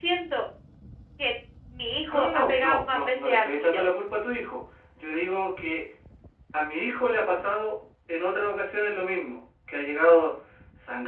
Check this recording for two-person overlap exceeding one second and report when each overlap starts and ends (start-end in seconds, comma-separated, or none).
2.1-3.9